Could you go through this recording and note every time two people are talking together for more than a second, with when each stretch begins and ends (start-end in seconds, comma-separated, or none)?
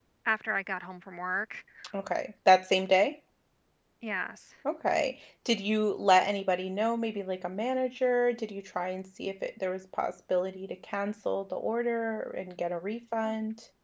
none